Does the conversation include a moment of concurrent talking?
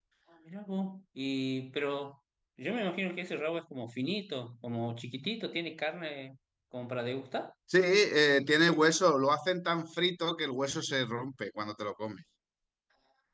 No

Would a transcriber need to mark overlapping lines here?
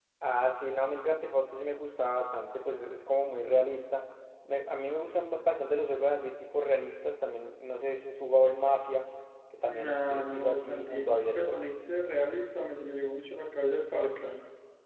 Yes, from 9.7 s

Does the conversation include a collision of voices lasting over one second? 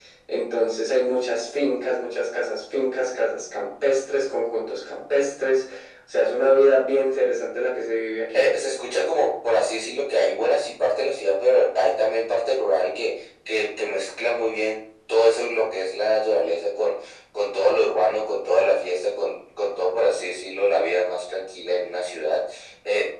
No

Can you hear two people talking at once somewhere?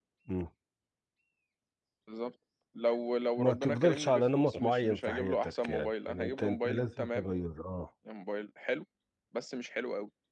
Yes, from 3.4 s

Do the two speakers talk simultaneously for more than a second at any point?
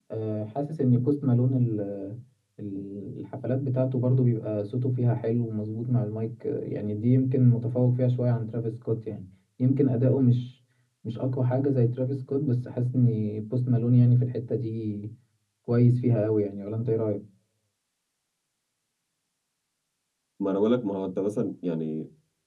No

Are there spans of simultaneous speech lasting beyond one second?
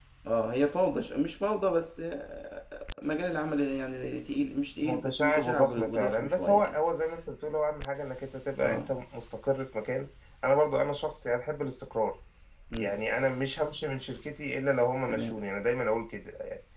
Yes, from 4.8 s

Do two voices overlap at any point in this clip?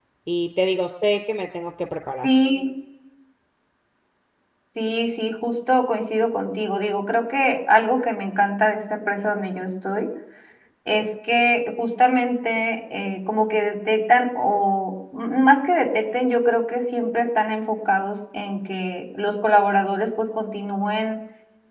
No

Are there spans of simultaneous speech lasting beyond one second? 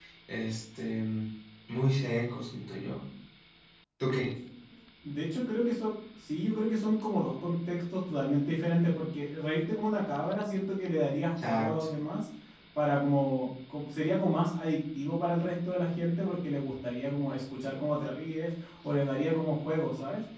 No

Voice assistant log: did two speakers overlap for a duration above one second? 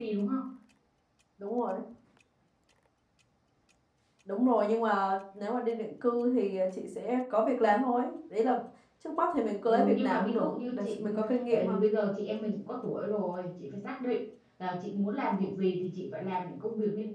Yes, from 9.7 s

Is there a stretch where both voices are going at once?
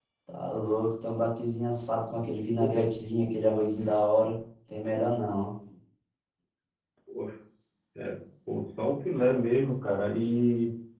No

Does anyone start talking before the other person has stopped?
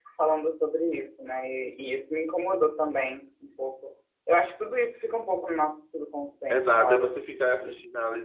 Yes, from 6.5 s

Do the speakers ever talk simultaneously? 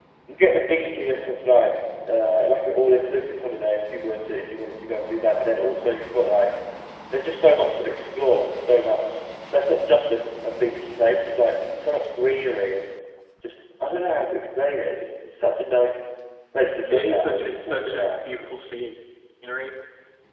Yes, from 16.9 s

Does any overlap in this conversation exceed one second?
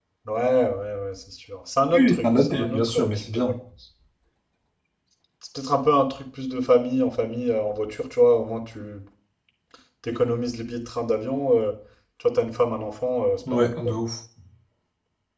Yes, from 1.9 s

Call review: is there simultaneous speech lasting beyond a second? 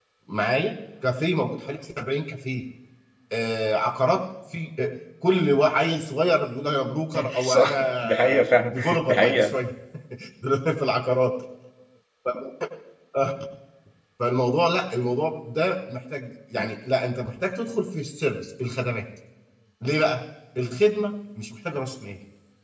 Yes, from 7.1 s

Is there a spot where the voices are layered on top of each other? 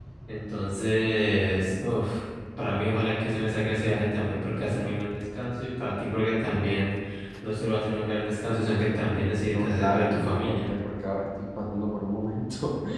Yes, from 9.5 s

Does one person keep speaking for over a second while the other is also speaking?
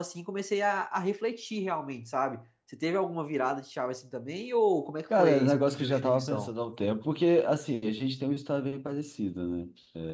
Yes, from 5.1 s

